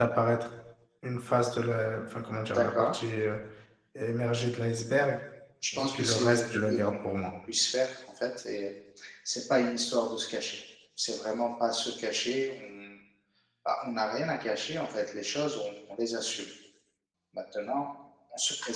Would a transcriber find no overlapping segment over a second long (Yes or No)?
No